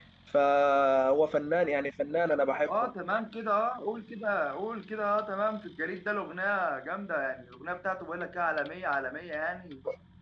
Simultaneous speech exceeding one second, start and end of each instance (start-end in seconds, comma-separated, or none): none